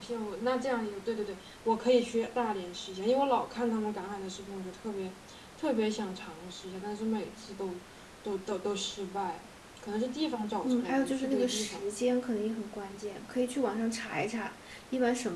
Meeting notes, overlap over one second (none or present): present